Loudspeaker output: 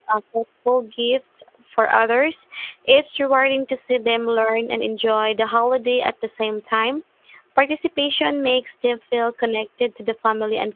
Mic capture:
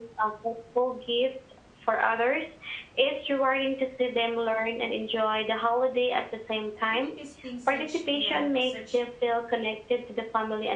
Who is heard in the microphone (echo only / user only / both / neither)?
both